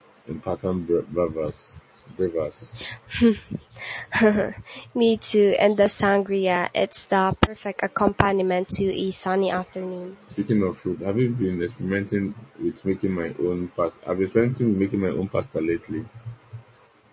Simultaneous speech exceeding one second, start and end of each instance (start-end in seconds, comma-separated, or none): none